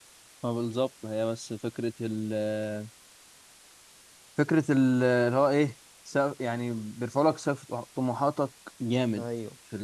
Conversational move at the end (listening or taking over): listening